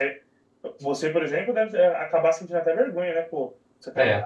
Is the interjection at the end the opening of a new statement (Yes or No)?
No